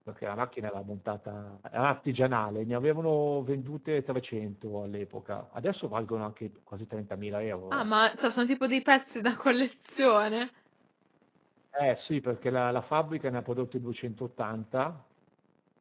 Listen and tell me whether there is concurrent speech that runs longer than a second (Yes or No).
No